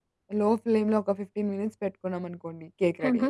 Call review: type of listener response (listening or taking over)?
taking over